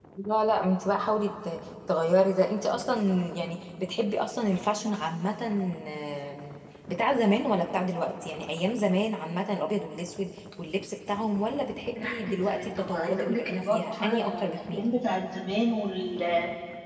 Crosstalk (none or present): present